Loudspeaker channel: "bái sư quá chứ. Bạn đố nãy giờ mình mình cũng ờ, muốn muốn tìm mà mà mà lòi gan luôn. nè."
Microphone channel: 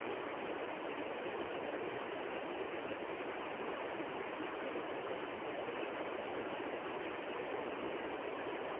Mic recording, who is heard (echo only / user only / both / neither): neither